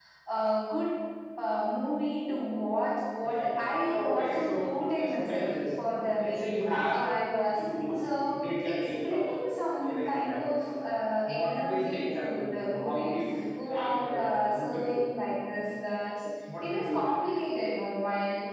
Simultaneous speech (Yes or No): Yes